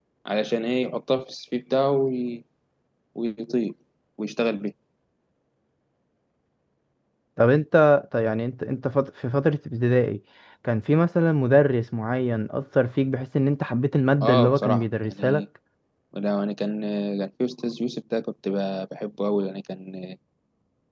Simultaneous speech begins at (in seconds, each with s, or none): 14.2 s